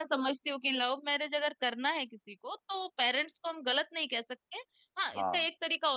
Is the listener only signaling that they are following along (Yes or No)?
Yes